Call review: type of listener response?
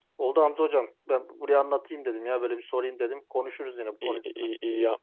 taking over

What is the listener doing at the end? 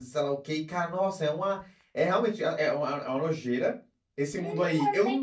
taking over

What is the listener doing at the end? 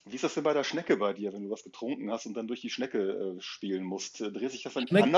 listening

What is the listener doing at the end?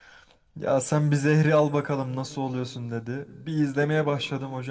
listening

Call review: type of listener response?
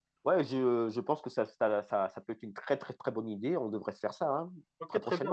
taking over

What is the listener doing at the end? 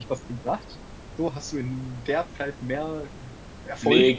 taking over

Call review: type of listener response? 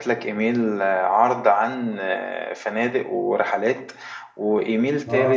listening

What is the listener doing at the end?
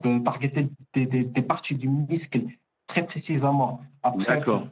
listening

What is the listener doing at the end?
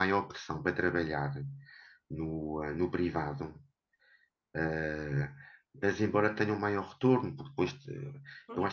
listening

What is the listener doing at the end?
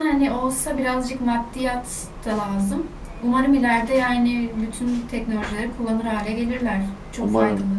taking over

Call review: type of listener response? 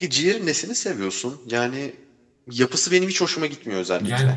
taking over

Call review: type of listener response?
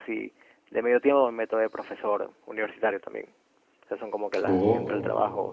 listening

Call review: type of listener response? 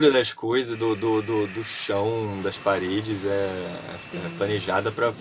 listening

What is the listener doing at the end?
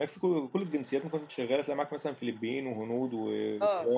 taking over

